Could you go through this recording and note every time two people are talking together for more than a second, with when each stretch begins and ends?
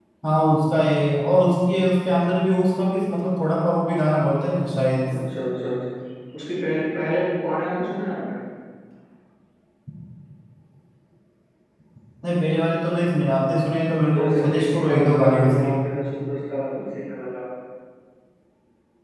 14.1-15.7

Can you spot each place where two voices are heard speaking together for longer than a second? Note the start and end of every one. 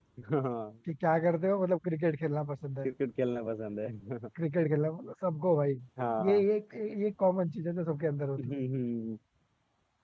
none

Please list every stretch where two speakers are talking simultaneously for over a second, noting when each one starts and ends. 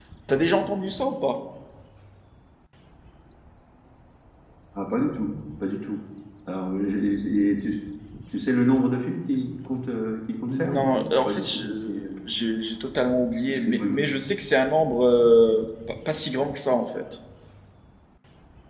10.5-12.0

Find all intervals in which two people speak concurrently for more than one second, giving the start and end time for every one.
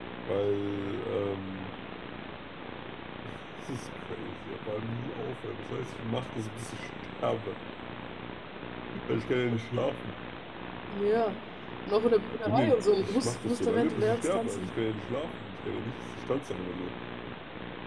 12.4-14.7

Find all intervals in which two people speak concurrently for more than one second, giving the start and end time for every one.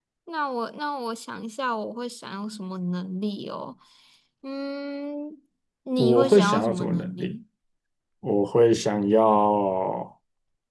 6.0-7.4

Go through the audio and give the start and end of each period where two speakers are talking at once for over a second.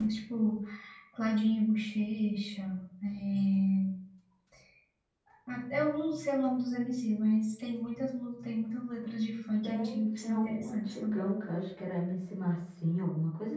9.6-11.3

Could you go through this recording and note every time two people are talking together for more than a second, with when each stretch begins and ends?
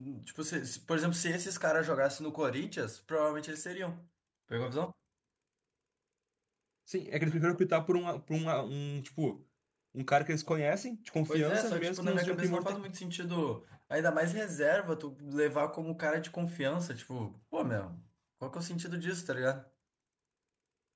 11.3-12.8

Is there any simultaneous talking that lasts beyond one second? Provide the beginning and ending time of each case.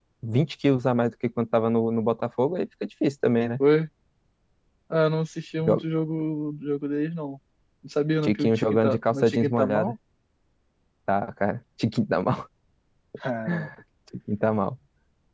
8.2-9.9

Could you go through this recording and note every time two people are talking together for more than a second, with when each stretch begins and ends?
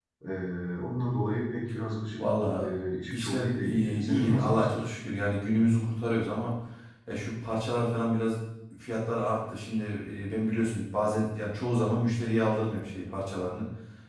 3.1-4.8

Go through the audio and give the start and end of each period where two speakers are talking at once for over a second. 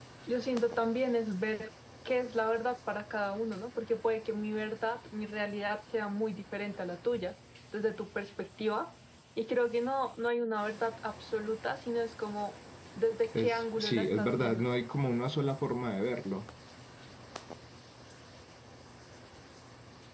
13.3-14.7

